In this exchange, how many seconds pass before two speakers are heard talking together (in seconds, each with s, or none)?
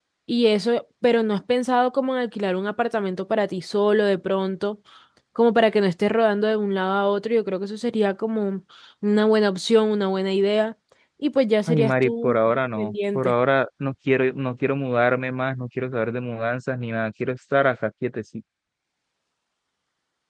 11.7 s